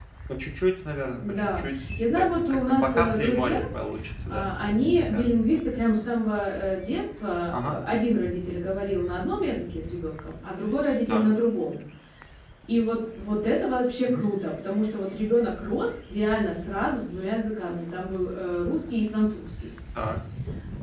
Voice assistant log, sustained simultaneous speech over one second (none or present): present